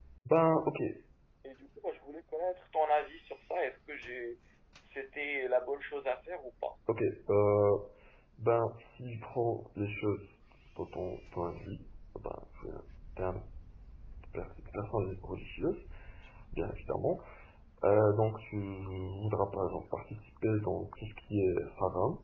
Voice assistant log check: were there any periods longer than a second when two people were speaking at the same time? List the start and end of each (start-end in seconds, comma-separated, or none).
none